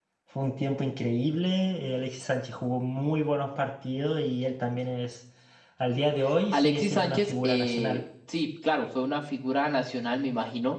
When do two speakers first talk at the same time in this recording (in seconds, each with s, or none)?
6.5 s